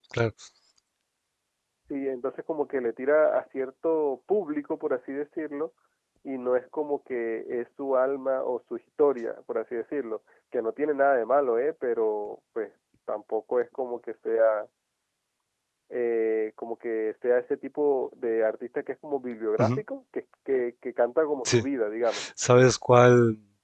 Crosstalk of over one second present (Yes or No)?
No